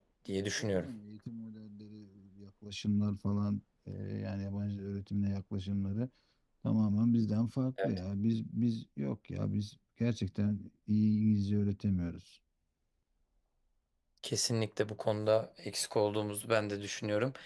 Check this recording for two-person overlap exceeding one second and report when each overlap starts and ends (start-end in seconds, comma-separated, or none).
none